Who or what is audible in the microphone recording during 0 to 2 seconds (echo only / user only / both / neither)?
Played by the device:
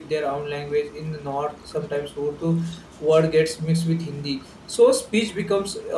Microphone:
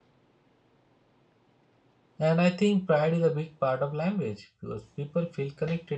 neither